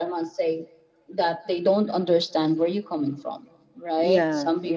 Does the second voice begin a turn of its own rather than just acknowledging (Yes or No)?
No